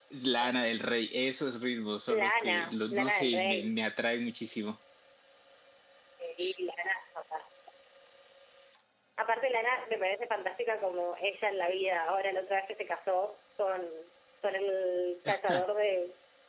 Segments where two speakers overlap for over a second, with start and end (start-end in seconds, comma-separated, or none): 2.1-3.7